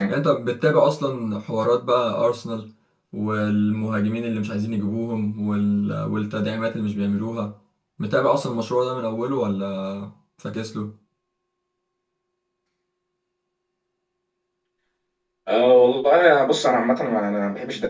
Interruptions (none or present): none